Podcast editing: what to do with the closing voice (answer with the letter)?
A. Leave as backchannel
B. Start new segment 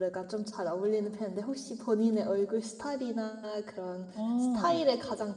A